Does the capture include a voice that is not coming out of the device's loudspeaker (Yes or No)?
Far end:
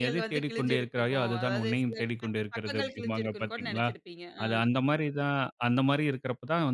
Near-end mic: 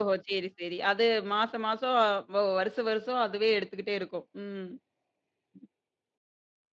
Yes